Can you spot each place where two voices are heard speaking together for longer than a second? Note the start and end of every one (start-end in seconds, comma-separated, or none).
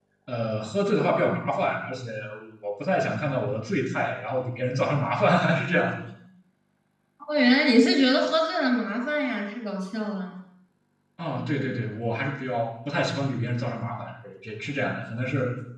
none